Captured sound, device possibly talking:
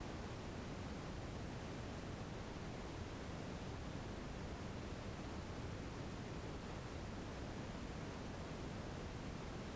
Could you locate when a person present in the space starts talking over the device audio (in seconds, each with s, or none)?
none